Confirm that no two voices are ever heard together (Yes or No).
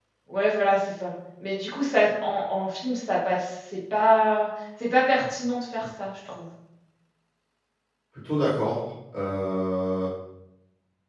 Yes